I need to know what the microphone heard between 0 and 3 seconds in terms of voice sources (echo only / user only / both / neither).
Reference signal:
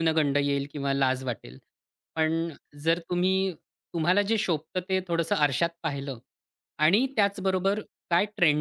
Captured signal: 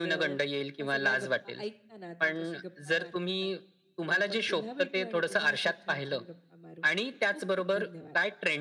both